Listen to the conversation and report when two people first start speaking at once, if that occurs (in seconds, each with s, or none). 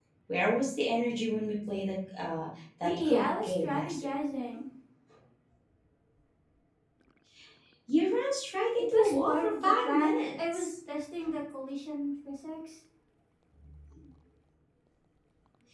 2.8 s